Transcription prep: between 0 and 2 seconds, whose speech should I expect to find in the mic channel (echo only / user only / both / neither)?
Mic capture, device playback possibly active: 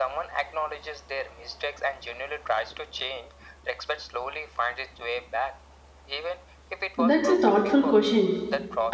echo only